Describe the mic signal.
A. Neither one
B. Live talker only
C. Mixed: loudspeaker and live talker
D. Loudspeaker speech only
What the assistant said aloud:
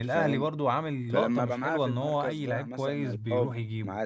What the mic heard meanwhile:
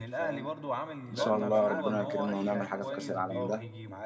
C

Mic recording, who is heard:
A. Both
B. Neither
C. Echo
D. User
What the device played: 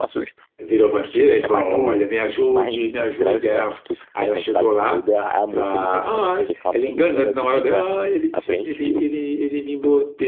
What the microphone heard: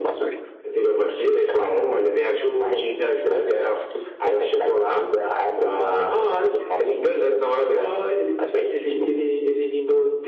C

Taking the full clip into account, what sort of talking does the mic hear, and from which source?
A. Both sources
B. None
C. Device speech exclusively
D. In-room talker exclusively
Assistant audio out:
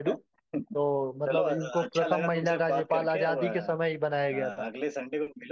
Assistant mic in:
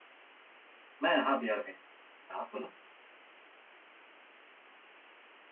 D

